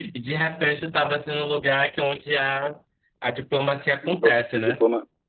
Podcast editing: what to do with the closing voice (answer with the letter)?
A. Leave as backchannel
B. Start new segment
B